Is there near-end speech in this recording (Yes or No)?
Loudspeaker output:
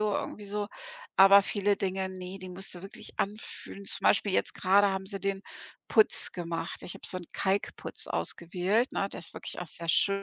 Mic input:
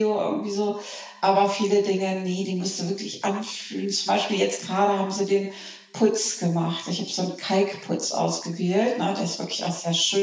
No